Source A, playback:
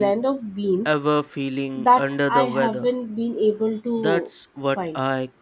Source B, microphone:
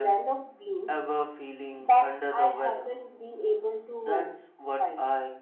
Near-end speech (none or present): none